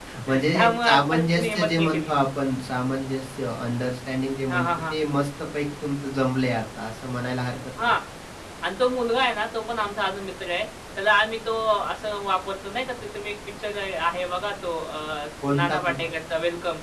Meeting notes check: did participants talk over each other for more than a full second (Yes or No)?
Yes